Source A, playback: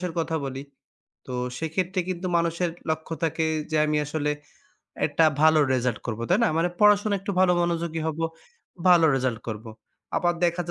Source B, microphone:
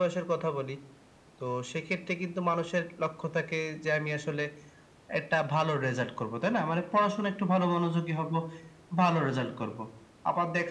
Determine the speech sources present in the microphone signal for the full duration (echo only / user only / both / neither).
echo only